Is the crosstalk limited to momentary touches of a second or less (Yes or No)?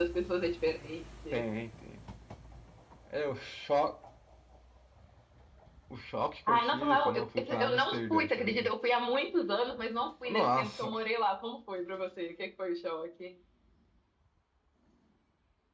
No